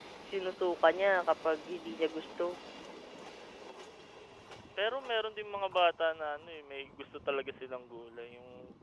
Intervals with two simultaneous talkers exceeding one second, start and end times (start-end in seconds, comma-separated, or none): none